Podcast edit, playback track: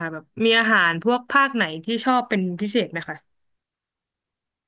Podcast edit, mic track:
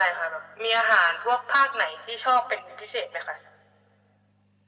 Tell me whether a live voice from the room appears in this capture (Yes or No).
No